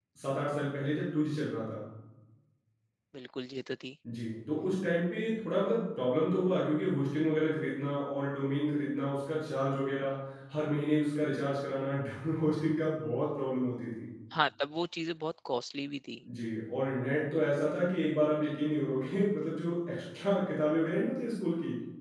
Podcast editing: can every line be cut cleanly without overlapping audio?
Yes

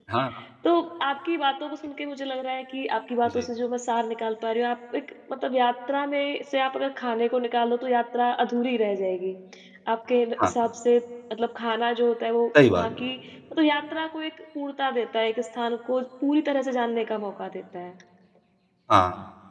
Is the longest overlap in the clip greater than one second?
No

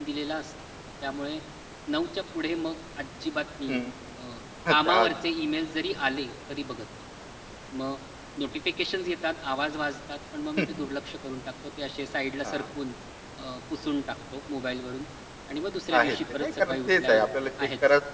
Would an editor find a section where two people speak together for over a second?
Yes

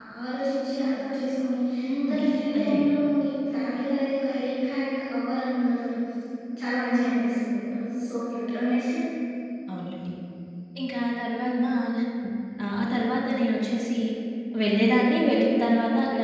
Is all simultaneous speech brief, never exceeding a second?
Yes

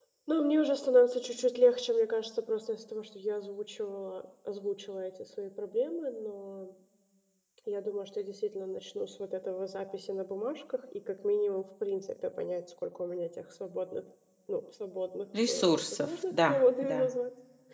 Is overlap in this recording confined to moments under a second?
No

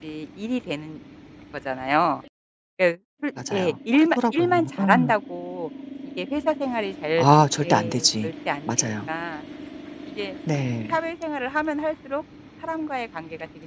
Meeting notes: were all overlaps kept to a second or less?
No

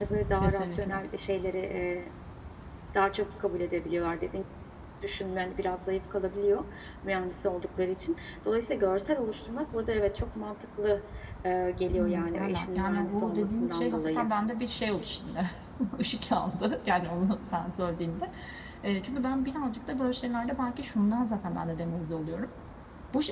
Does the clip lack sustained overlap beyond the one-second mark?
No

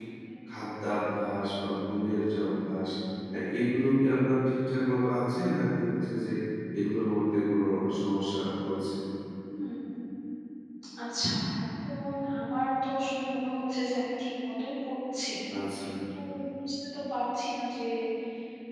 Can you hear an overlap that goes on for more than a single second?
No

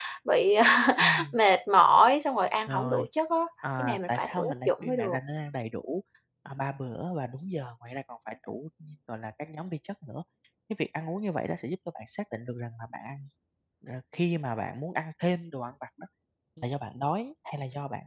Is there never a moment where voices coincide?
No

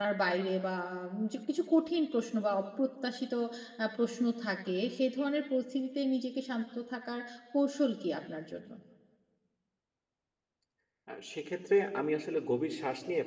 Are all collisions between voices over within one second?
Yes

